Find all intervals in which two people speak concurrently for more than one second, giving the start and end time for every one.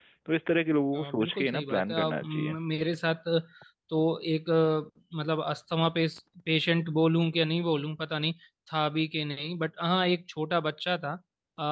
0.9-2.5

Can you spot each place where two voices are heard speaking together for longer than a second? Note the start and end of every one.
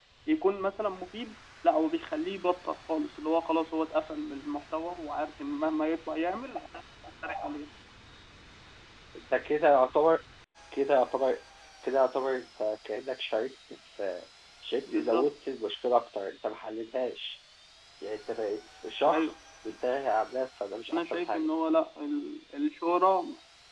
none

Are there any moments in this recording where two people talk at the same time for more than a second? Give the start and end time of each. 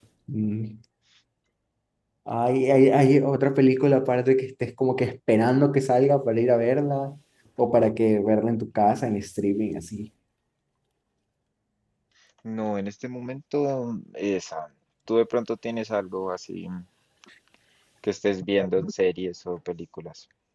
none

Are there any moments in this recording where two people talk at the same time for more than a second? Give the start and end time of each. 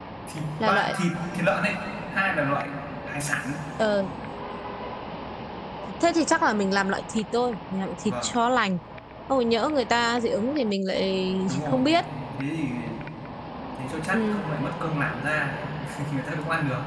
none

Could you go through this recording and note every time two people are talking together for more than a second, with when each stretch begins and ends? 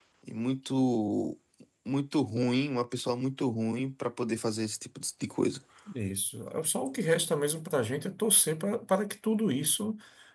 none

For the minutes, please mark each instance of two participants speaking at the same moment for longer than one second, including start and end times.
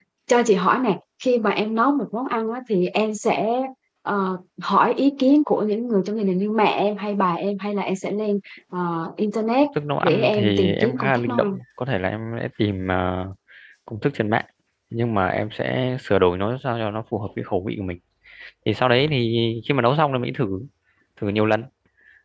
10.0-11.6

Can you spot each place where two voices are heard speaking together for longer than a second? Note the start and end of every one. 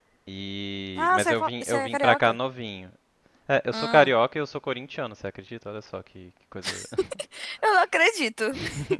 1.0-2.4

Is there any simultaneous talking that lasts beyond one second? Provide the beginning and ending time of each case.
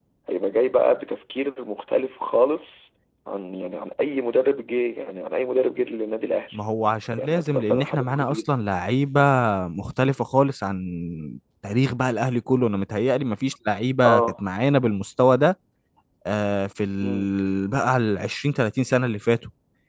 7.1-8.4

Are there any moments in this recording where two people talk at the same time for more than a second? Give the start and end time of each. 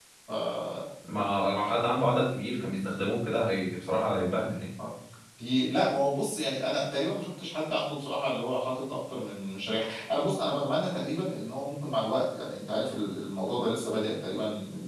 none

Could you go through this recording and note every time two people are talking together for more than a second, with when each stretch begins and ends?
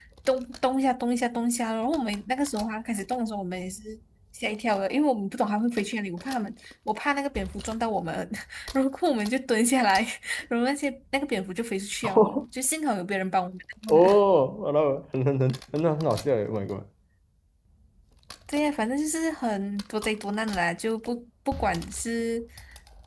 none

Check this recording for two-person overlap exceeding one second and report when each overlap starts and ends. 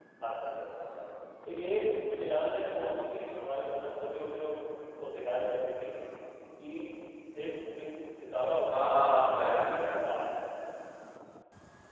8.7-10.3

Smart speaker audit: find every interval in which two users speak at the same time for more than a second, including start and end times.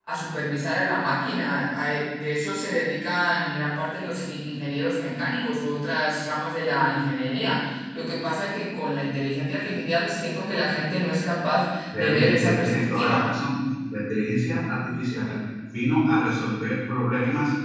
12.0-13.2

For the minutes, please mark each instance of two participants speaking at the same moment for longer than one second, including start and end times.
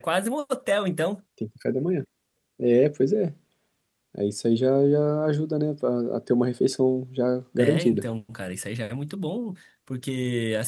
none

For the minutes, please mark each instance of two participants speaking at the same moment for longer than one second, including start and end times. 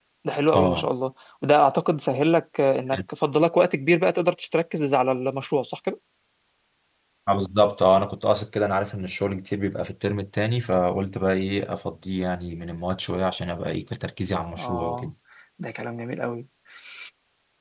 none

